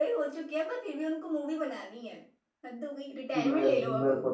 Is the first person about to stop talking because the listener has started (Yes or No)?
Yes